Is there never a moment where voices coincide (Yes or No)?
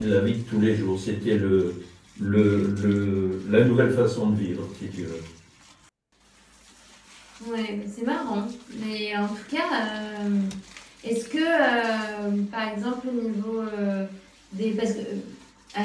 Yes